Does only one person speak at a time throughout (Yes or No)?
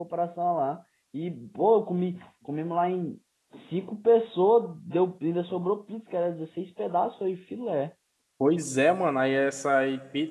Yes